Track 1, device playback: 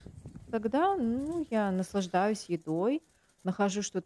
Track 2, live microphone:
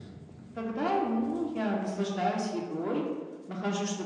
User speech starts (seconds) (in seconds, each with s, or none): none